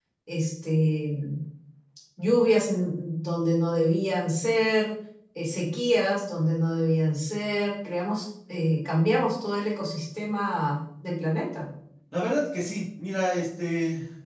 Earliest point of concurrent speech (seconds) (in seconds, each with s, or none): none